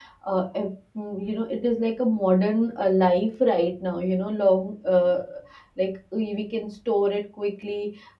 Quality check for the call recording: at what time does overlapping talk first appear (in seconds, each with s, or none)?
none